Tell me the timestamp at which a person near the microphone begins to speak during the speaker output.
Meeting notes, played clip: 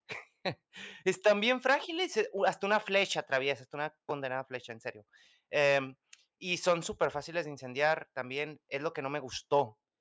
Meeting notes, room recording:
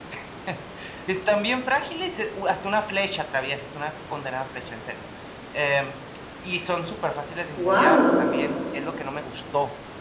8 s

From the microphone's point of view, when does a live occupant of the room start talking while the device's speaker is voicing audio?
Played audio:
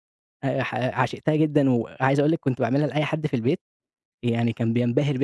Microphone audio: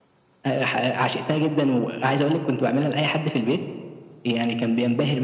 none

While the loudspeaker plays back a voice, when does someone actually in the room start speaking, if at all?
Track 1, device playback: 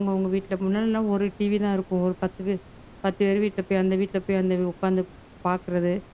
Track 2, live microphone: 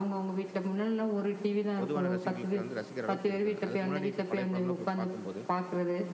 2 s

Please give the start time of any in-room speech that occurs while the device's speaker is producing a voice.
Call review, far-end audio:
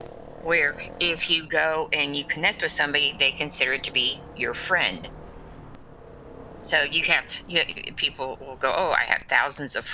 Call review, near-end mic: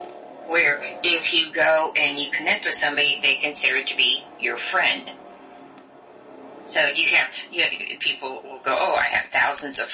none

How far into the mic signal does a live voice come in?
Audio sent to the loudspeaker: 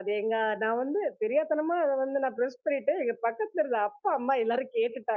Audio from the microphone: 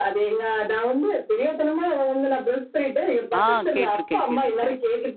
3 s

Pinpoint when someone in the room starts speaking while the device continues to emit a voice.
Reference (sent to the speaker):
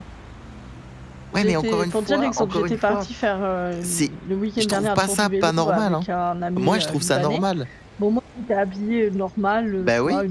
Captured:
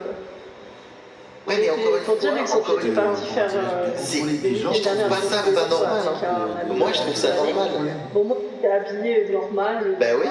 3 s

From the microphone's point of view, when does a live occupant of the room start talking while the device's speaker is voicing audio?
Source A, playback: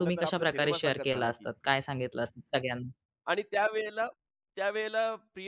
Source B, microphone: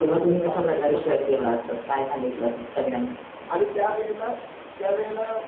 none

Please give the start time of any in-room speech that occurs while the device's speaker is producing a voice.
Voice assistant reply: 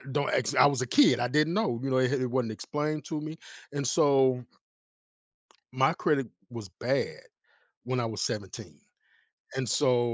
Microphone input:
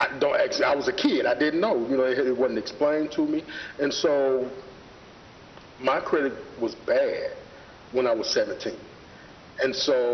none

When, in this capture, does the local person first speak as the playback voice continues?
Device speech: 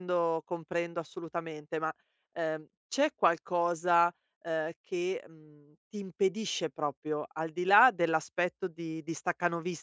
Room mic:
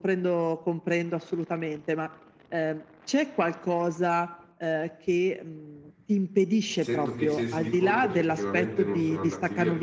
7 s

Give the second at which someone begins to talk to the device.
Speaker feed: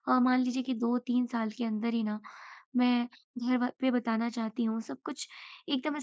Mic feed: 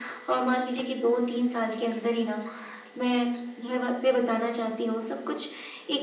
none

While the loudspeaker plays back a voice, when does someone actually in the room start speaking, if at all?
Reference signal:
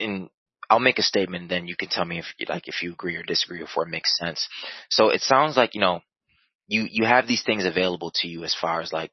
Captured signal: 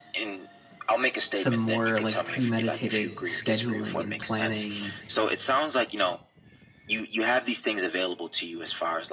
1 s

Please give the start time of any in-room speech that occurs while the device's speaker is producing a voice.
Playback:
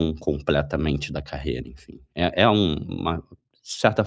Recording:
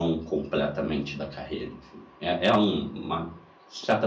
none

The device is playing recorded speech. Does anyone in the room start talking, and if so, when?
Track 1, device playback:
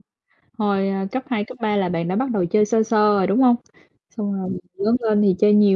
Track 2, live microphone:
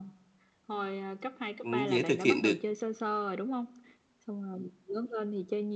2 s

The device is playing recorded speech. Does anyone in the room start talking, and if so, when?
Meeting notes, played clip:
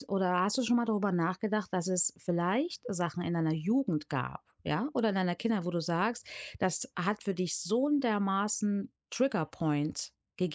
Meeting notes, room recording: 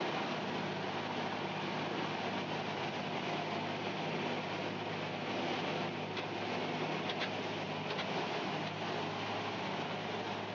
none

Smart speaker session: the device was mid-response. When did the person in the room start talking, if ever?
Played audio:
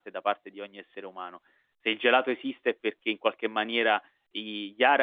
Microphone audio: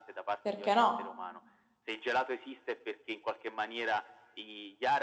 0 s

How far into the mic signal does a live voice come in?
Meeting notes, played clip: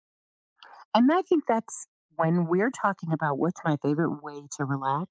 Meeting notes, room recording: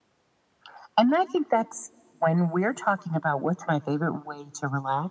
none

